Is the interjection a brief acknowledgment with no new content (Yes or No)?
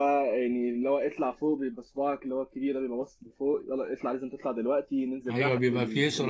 No